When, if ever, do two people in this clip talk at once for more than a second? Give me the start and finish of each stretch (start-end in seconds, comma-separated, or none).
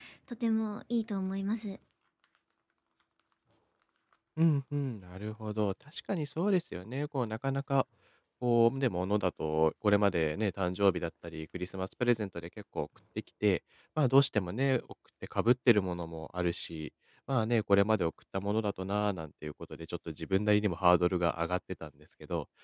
none